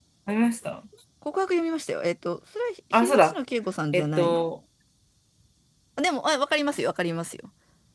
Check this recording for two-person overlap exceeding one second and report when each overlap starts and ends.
none

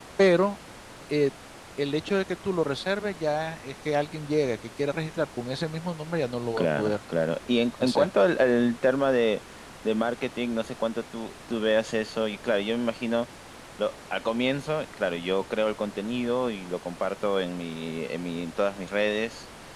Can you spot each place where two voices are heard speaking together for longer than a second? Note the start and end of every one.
none

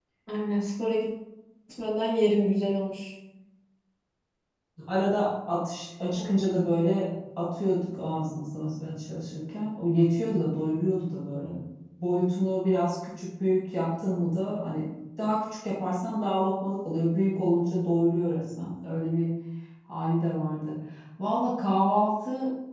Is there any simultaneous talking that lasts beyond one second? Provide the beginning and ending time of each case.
none

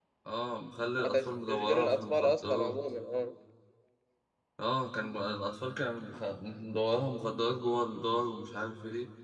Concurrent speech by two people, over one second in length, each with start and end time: 1.0-2.7

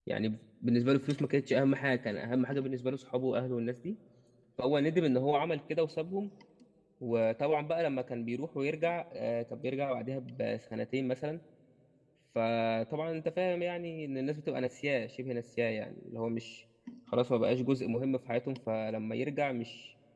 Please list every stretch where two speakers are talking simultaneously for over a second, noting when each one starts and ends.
none

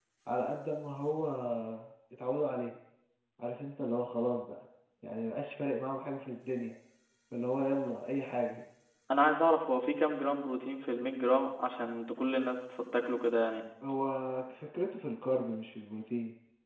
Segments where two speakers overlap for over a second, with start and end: none

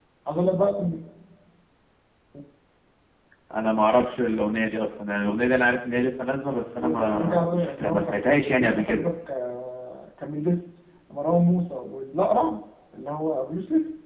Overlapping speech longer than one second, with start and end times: 6.8-9.0

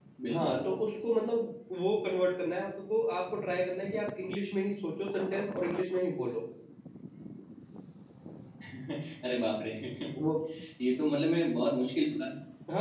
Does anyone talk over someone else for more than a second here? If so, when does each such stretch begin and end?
none

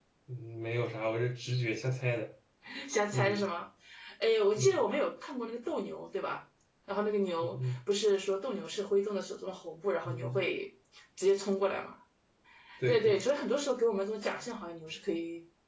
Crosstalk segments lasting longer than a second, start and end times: none

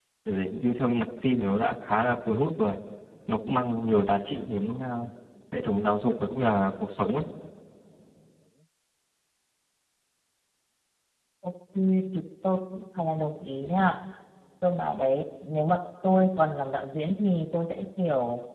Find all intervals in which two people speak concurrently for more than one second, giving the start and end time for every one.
none

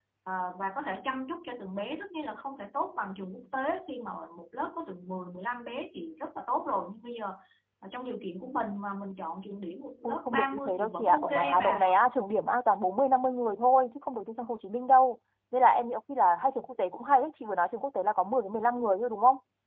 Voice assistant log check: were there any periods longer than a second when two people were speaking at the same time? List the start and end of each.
10.0-11.9

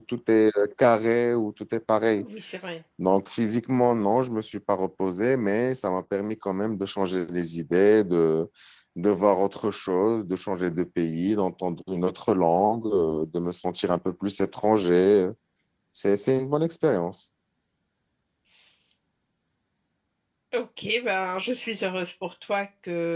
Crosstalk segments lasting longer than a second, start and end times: none

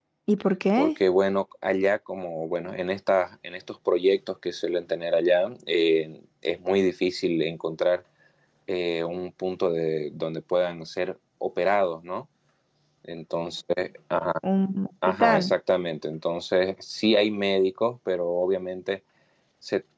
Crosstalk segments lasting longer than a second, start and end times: none

